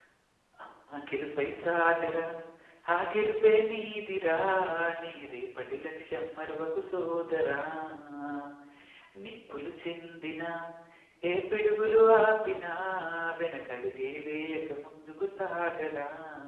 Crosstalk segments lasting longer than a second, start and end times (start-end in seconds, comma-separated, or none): none